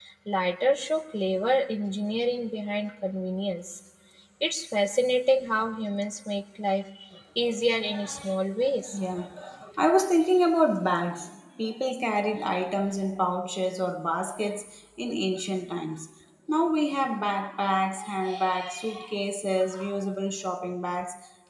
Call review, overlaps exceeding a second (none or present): none